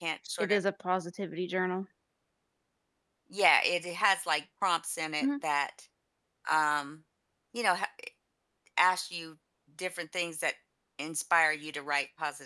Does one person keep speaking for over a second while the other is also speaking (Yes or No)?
No